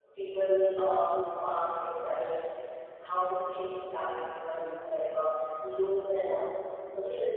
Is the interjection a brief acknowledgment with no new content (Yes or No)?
Yes